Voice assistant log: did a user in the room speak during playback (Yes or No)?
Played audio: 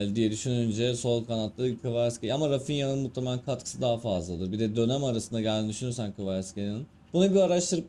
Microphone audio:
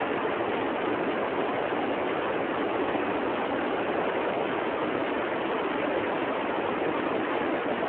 No